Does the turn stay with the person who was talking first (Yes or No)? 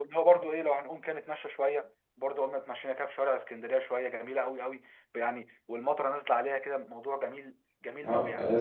No